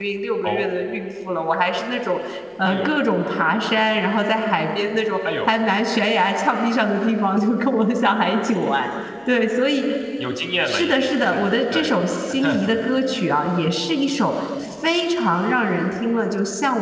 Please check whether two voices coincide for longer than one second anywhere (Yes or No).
Yes